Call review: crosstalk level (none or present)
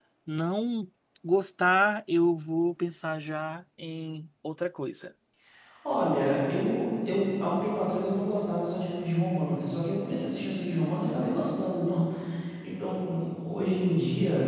none